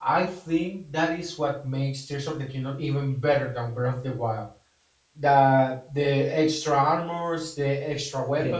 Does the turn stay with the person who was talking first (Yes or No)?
Yes